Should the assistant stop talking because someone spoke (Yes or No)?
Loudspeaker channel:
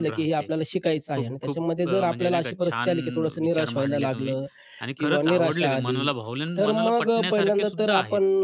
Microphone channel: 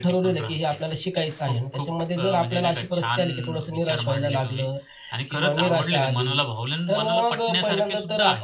No